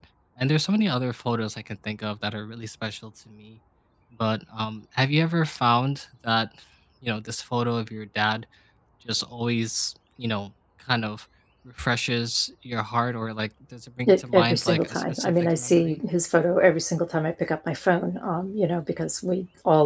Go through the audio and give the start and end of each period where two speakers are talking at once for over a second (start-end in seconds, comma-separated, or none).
14.1-16.0